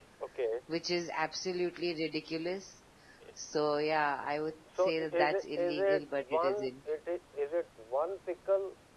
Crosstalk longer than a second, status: present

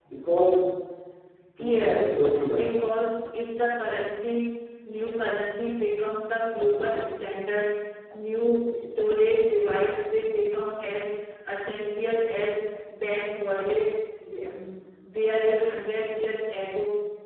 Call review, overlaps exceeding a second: present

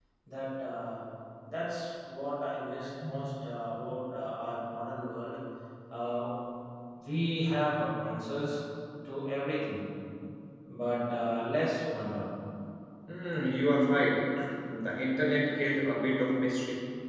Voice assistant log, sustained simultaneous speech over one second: none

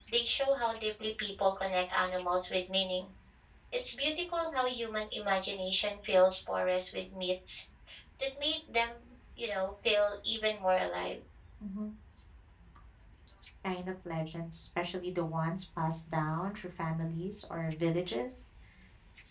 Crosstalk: none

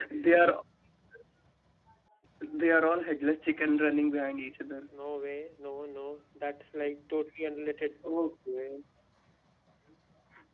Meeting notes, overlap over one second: none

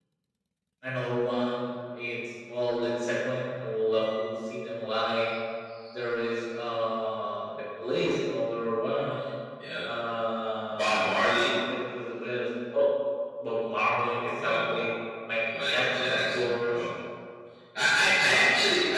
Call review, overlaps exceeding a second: present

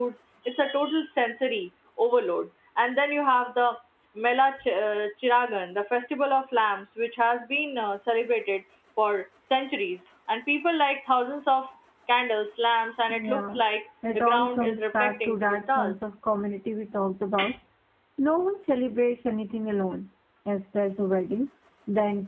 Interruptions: present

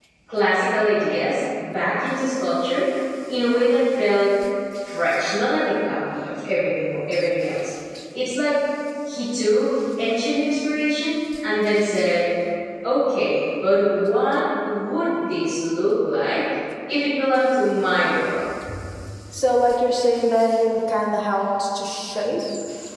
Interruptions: none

